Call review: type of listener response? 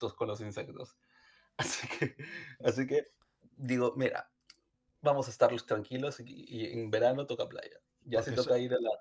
listening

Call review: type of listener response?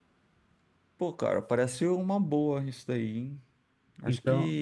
listening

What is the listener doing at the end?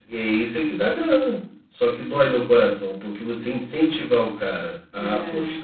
listening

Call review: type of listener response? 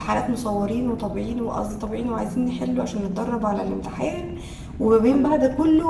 listening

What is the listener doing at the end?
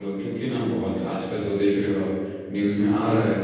listening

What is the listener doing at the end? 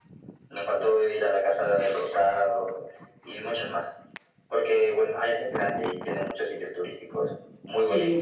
taking over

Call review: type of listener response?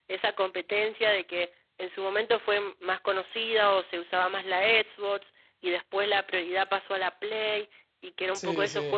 listening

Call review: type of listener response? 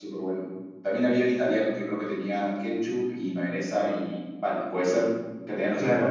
taking over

